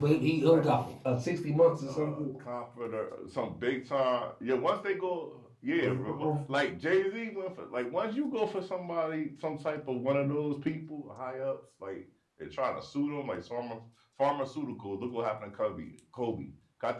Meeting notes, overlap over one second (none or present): none